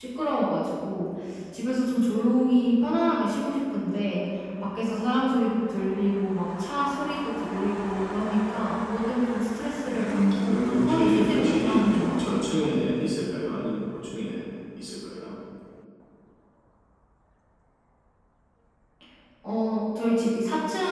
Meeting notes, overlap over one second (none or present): present